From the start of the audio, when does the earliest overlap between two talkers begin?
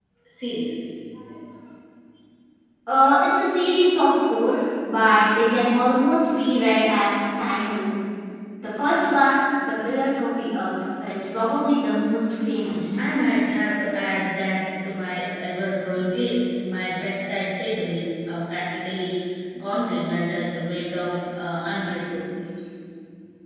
none

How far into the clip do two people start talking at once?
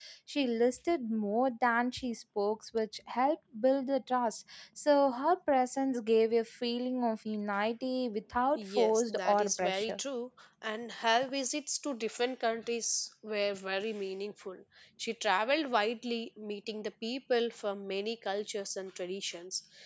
8.6 s

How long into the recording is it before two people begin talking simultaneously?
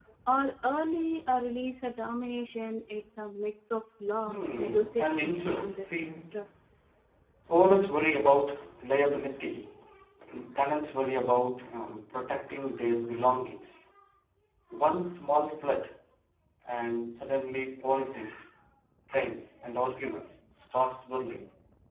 4.2 s

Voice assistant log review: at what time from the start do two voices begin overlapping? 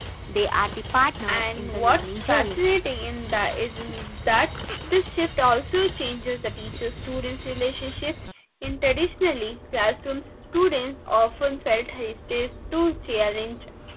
1.3 s

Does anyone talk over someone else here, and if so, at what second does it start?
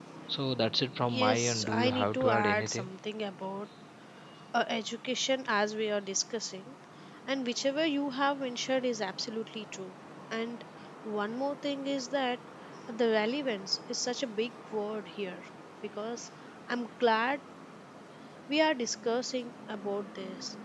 1.1 s

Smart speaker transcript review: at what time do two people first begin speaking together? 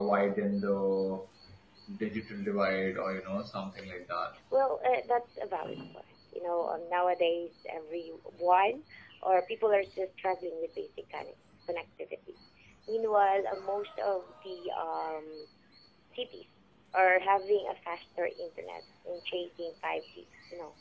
none

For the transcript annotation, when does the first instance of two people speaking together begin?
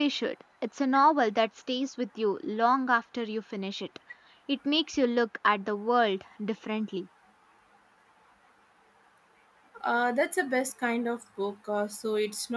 none

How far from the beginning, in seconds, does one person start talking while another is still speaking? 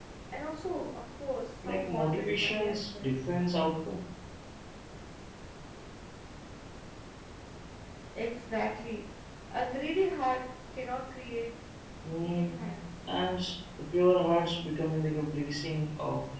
1.6 s

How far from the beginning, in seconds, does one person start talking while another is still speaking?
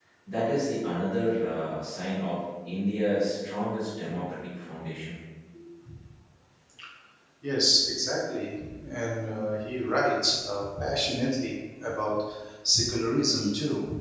none

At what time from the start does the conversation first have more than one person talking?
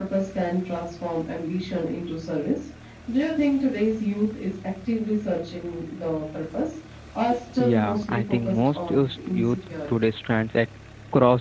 7.6 s

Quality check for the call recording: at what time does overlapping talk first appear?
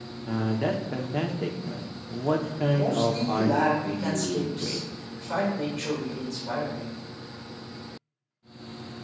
2.7 s

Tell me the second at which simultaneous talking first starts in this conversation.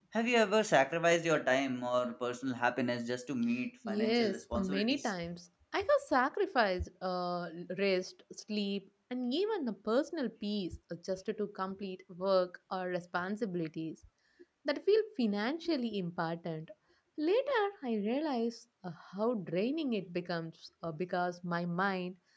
3.8 s

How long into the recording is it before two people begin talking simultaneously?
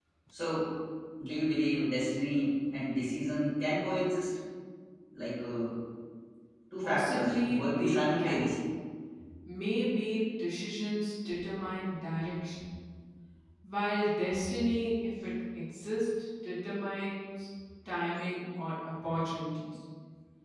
6.8 s

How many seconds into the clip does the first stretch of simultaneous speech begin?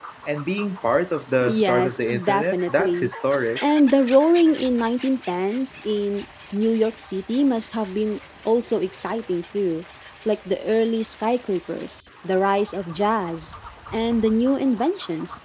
1.4 s

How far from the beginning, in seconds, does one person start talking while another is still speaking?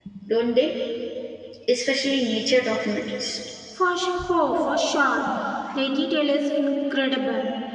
none

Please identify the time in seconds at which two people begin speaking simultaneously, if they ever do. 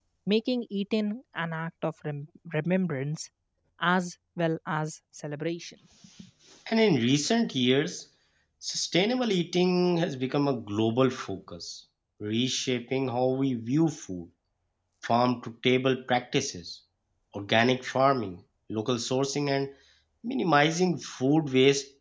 none

